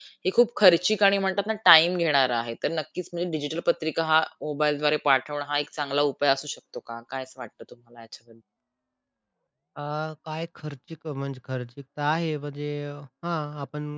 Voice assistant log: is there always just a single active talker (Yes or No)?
Yes